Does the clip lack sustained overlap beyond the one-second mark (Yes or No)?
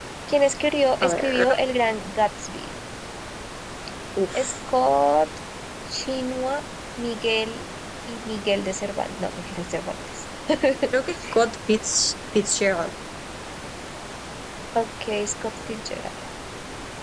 Yes